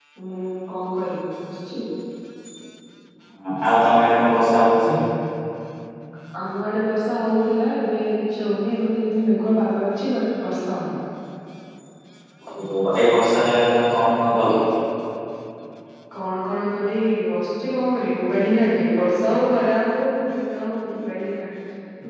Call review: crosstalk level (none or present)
none